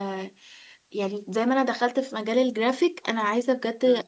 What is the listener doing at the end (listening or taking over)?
listening